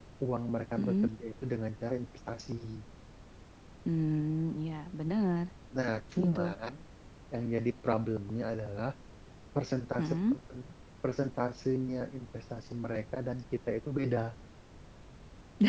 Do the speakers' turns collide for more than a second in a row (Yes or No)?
No